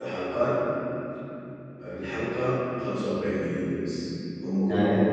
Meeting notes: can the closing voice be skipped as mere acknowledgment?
No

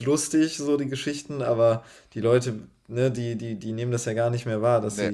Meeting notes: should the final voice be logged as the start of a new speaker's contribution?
No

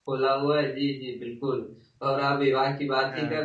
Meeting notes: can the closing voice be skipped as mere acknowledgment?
Yes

